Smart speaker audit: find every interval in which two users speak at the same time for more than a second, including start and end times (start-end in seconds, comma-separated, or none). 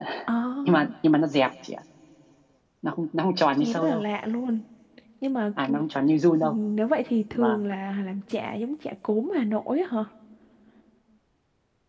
none